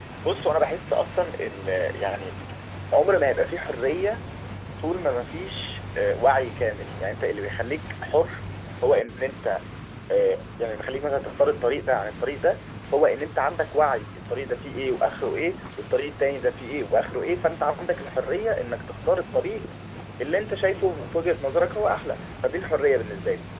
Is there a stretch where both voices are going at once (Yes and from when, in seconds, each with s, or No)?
No